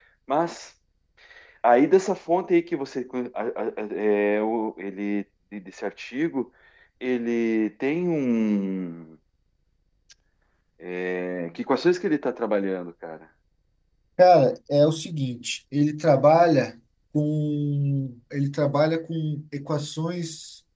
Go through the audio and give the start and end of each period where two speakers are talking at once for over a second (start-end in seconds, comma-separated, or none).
none